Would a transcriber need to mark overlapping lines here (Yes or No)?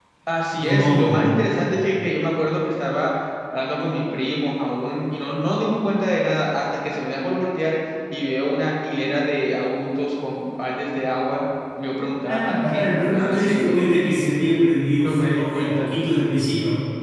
Yes